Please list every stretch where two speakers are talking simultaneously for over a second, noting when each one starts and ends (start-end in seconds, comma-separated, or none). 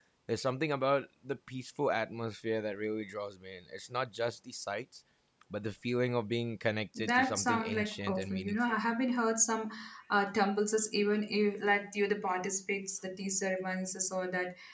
7.0-8.8